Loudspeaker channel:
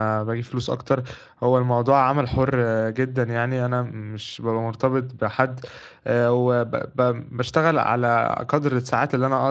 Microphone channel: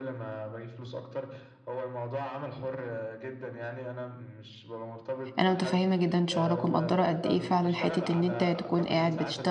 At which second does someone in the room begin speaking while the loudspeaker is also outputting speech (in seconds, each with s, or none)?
5.4 s